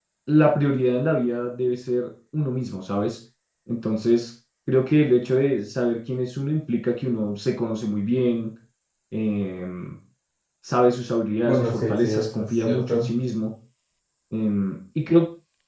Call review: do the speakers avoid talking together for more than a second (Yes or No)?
No